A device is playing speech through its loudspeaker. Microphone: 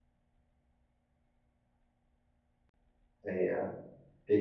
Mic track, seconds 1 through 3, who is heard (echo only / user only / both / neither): neither